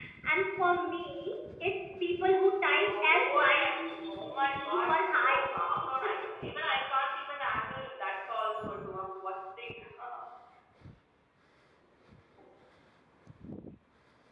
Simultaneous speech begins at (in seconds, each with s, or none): 2.8 s